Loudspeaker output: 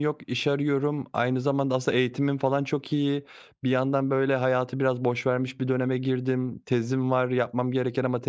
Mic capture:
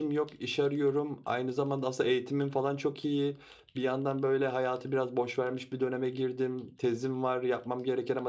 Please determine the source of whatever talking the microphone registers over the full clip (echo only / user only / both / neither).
echo only